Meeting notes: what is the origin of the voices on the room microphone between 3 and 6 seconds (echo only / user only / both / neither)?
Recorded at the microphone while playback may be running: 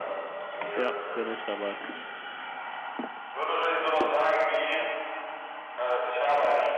echo only